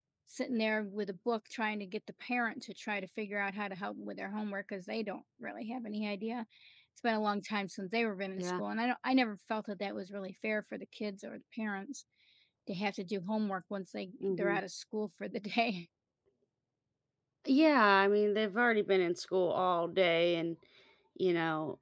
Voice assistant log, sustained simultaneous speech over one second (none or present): none